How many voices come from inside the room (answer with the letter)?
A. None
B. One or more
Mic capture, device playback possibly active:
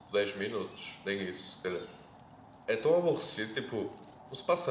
B